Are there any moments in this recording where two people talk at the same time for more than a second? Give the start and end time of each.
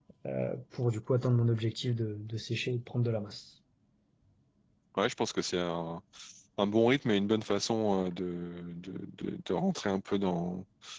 none

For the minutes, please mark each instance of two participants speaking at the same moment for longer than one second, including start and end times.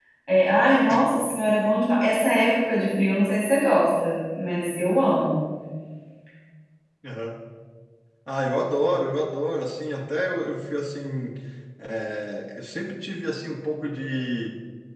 none

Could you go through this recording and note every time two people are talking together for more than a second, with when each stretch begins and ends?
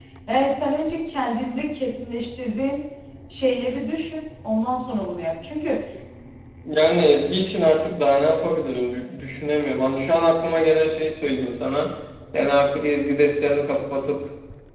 none

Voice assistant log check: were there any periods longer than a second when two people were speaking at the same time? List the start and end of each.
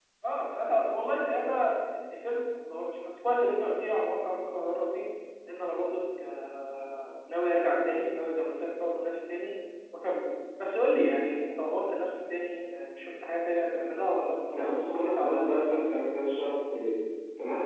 14.5-15.8

